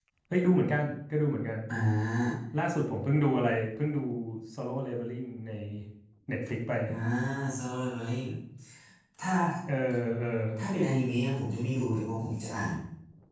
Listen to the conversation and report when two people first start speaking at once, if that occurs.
none

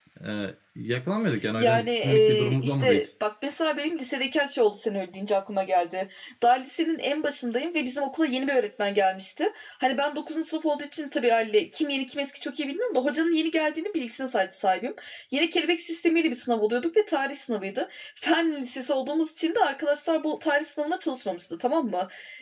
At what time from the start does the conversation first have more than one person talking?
1.6 s

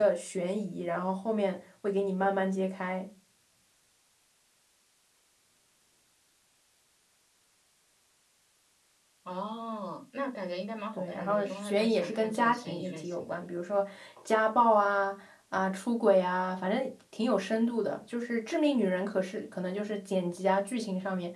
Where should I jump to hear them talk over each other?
11.0 s

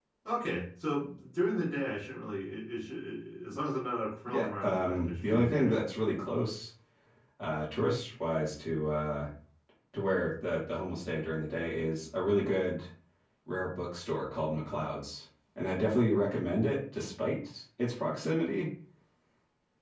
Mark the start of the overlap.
4.3 s

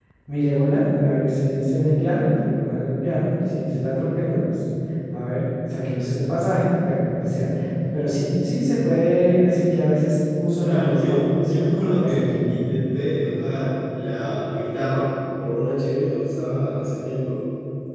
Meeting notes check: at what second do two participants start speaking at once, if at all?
10.6 s

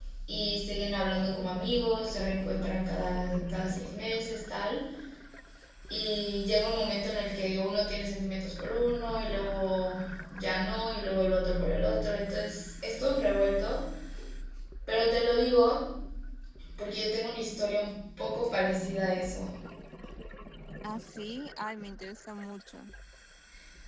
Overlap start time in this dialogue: none

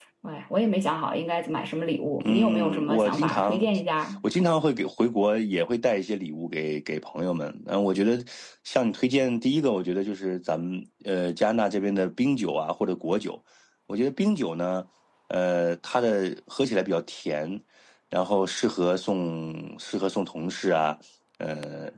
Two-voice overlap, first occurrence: 2.2 s

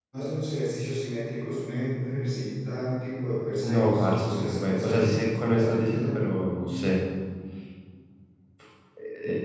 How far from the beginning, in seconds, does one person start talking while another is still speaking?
3.6 s

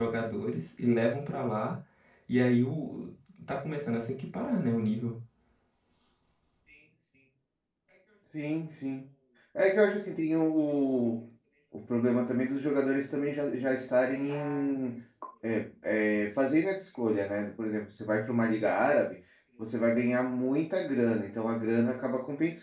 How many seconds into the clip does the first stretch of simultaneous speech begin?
none

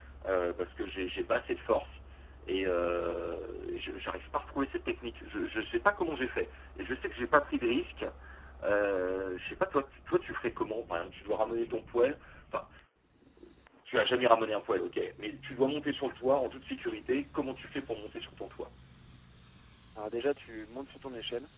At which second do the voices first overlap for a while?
none

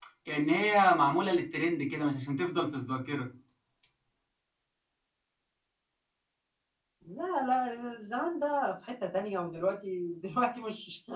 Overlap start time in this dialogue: none

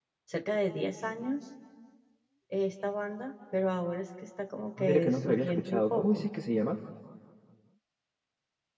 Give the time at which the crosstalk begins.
4.8 s

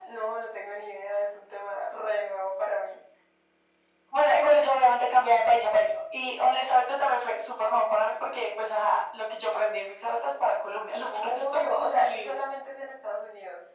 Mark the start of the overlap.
11.1 s

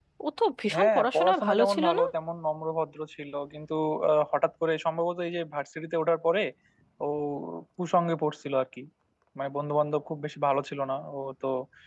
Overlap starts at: 0.7 s

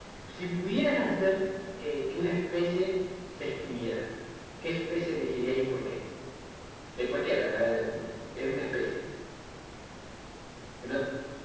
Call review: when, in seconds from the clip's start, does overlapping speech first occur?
none

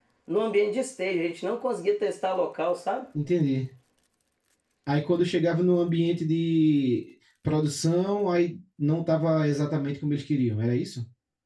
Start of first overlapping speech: none

